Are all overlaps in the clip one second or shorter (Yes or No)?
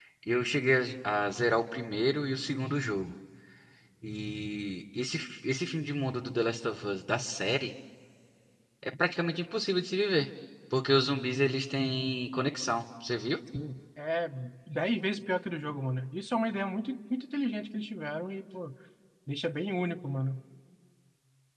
Yes